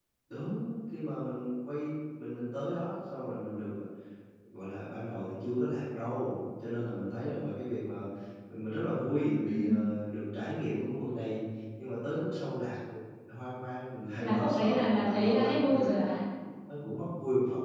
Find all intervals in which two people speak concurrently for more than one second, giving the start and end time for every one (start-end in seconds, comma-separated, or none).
14.2-15.9